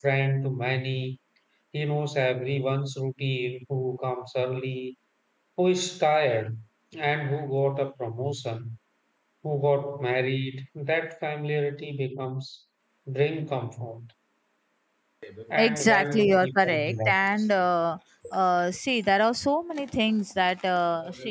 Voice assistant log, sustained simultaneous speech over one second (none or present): present